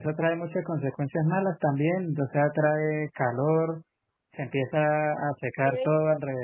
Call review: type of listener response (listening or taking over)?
listening